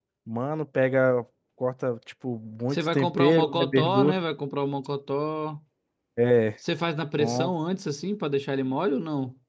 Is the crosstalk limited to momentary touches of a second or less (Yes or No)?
No